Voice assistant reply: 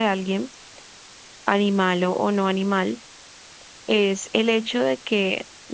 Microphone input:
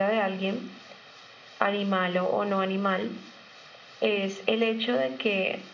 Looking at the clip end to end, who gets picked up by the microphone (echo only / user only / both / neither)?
echo only